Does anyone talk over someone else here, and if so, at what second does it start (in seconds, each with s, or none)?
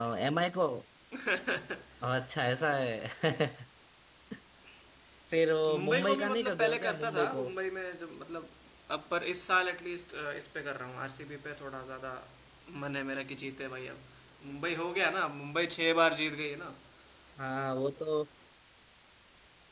5.7 s